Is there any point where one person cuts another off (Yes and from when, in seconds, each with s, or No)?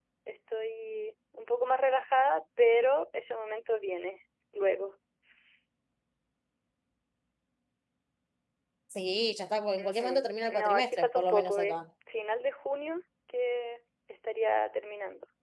Yes, from 9.8 s